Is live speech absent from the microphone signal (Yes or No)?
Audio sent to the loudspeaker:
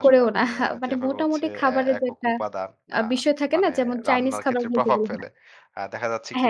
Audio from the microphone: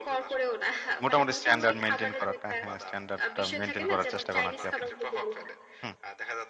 No